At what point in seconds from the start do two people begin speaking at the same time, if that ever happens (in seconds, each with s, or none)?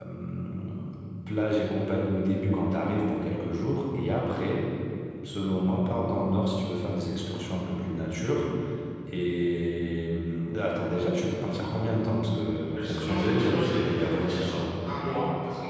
12.8 s